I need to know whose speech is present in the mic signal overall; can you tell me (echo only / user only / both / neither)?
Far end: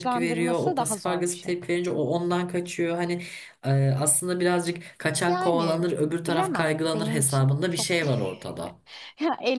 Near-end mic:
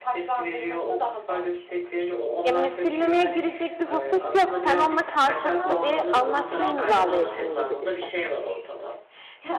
both